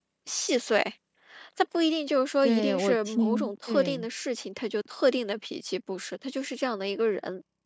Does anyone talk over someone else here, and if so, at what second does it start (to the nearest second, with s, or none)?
2 s